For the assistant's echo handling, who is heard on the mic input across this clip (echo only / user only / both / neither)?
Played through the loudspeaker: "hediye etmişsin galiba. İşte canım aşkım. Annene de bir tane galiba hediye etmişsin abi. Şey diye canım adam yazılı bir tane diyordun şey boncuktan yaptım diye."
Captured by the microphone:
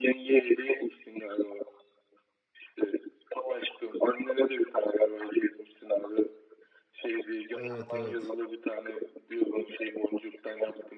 both